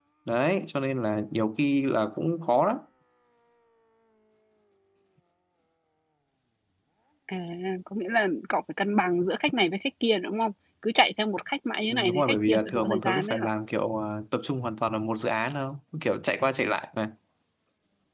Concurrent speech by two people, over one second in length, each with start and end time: 11.9-13.5

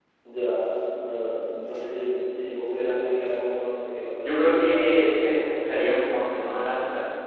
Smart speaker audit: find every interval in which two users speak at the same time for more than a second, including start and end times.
4.2-6.2

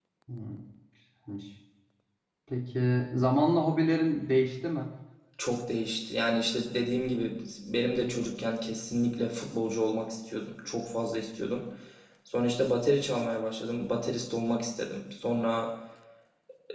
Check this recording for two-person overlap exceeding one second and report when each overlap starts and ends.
none

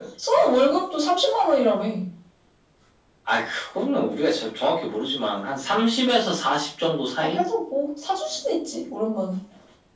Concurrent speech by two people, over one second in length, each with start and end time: none

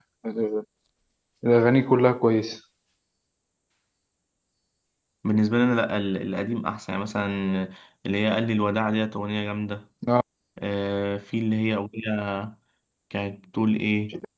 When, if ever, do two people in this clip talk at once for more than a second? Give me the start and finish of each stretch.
none

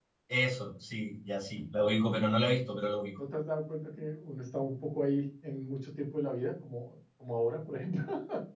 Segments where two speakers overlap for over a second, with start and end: none

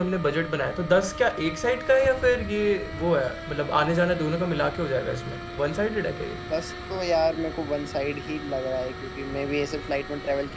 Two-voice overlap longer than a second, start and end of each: none

